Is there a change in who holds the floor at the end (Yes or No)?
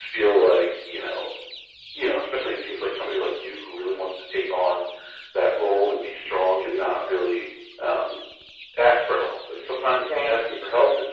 No